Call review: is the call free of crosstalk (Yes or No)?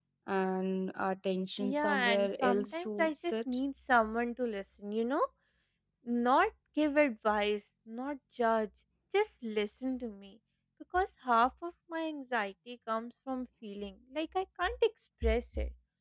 No